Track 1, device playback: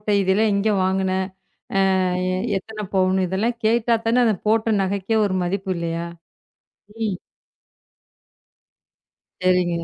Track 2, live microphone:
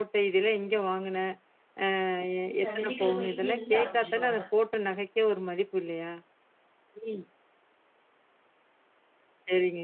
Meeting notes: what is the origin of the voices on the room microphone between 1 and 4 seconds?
both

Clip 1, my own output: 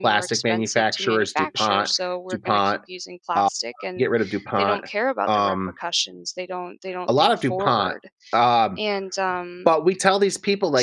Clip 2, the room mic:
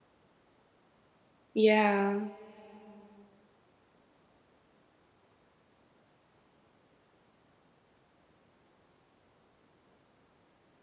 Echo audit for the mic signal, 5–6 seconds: neither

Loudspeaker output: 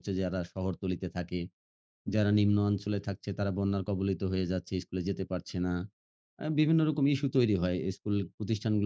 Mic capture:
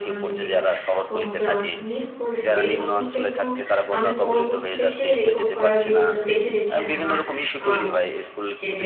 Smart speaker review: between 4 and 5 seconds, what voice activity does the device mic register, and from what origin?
both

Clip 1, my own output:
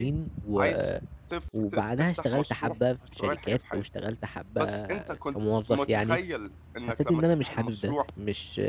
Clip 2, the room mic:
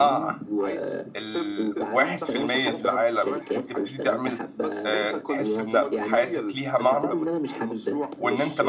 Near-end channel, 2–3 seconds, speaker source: both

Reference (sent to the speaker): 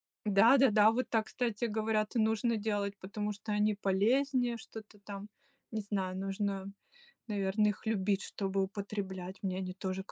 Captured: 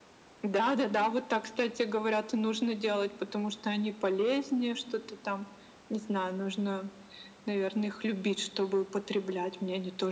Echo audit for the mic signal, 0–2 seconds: echo only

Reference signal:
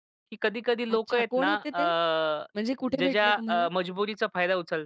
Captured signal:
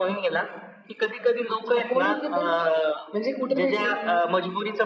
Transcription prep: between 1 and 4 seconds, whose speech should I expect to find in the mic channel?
echo only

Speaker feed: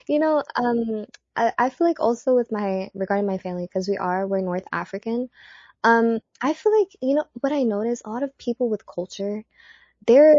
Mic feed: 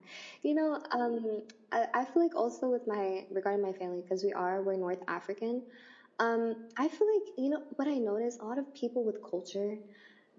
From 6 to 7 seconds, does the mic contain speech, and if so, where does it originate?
echo only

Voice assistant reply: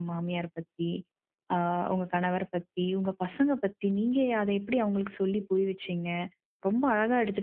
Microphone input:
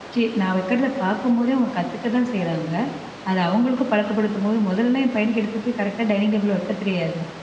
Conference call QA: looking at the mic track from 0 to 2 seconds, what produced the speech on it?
user only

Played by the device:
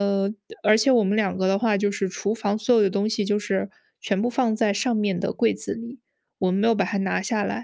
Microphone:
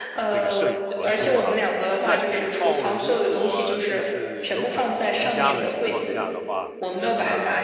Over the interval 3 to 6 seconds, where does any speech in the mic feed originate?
both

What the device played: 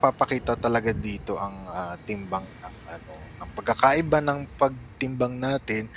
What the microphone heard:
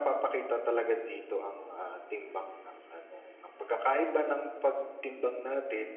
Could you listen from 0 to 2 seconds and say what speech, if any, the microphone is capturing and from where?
echo only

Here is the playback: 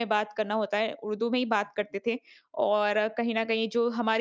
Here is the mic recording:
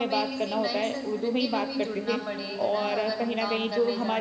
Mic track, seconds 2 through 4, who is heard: both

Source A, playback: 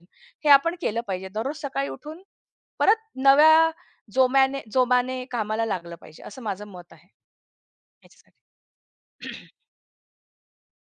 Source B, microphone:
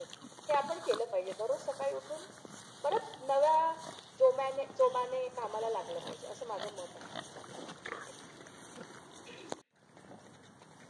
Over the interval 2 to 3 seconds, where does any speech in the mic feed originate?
echo only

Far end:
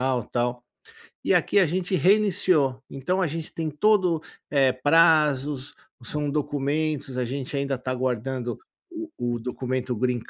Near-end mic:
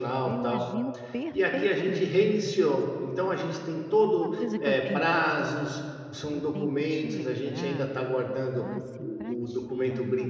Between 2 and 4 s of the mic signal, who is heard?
both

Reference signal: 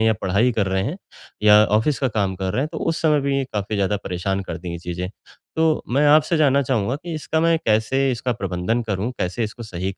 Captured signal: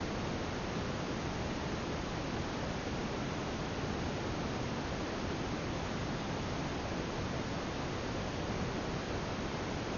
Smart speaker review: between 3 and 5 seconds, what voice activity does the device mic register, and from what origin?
neither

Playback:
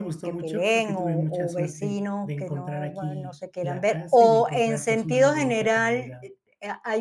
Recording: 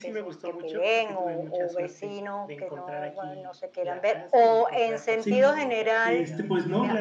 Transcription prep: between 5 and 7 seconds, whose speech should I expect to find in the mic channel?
both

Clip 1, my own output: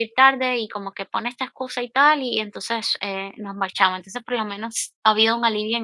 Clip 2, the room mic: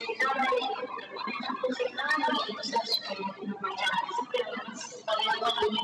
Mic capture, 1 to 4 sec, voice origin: echo only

